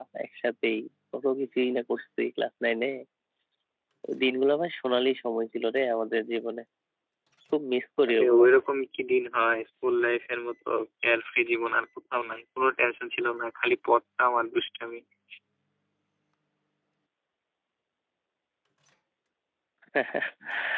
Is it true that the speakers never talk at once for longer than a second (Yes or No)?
Yes